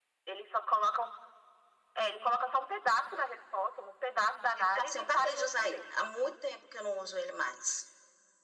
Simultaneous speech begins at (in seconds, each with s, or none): 4.3 s